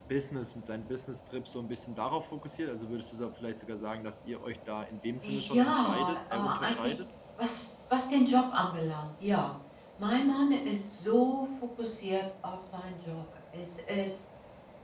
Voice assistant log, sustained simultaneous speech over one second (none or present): present